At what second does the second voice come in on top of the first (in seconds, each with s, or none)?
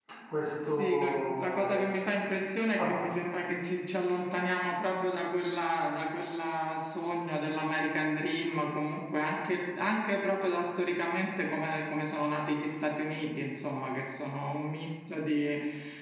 0.6 s